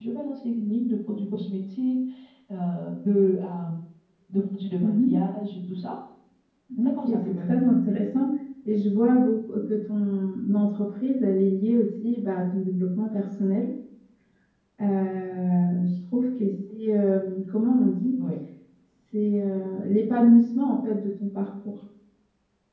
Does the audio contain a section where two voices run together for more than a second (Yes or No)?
Yes